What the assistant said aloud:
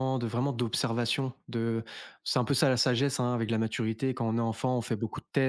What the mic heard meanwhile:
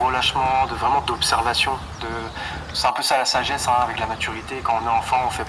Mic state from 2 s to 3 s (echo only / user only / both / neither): echo only